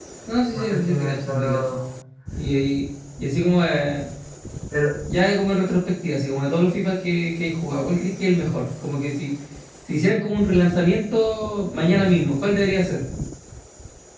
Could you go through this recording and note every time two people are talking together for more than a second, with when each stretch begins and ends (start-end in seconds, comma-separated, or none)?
0.5-1.8